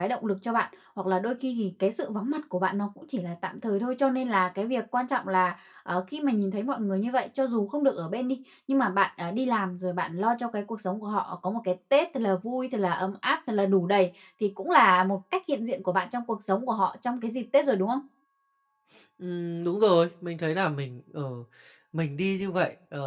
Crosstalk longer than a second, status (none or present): none